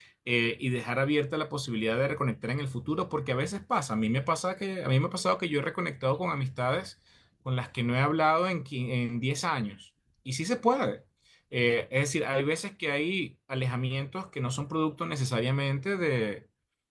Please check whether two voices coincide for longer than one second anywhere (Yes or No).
No